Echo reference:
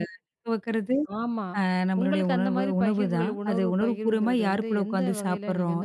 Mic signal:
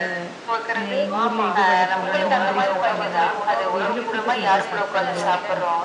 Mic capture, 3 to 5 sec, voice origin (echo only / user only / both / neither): both